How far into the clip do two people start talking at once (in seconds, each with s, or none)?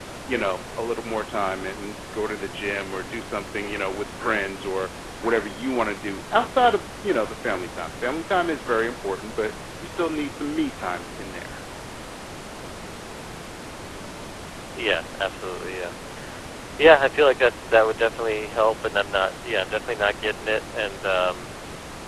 none